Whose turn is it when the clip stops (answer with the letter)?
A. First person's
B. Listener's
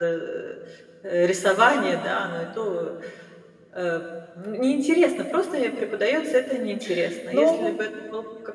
A